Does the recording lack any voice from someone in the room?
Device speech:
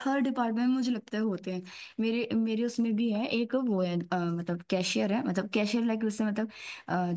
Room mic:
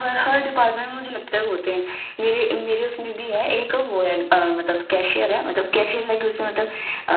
Yes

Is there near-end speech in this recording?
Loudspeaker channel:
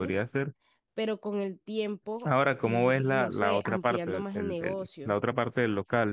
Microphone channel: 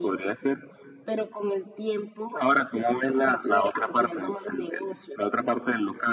No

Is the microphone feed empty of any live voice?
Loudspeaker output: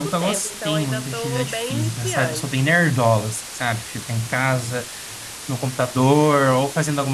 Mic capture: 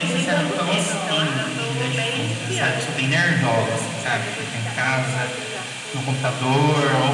No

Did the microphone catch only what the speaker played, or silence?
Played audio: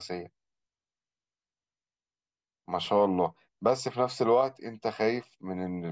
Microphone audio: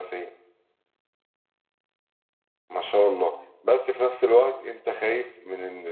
Yes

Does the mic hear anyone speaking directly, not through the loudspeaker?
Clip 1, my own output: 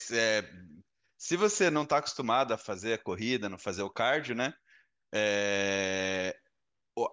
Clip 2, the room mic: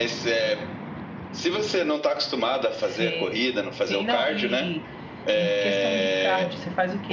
Yes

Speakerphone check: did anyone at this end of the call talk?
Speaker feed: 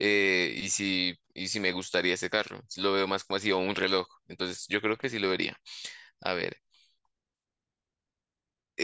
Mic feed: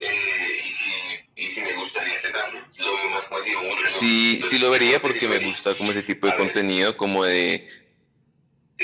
Yes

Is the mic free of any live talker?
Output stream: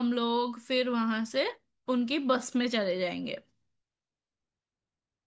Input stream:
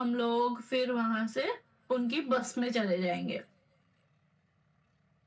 Yes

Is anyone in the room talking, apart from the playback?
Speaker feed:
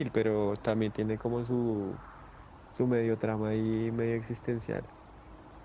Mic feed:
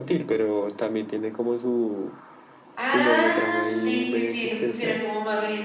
Yes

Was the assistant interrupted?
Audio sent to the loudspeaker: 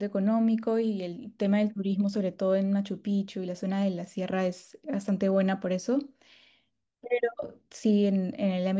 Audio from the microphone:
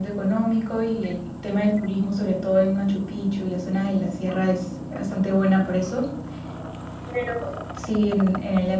No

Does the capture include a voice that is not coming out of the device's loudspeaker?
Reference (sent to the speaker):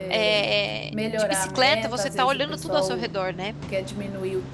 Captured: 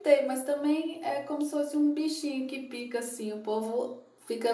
Yes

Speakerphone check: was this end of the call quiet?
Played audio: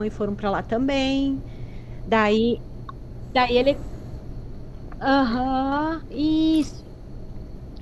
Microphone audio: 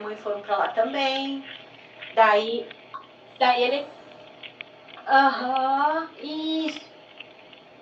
Yes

